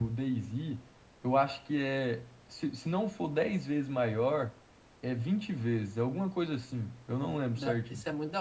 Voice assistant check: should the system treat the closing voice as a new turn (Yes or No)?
Yes